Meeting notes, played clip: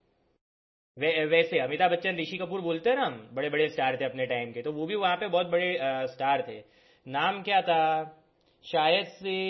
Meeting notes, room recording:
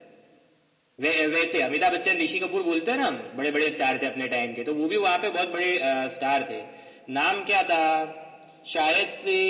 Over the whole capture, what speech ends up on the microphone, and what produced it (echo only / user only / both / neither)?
echo only